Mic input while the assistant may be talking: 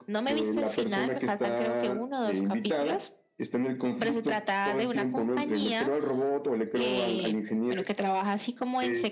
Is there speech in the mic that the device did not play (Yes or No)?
No